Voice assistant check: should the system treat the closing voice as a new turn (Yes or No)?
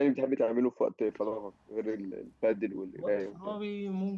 Yes